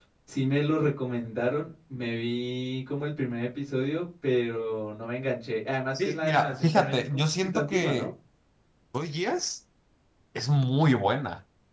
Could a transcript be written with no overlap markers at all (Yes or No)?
No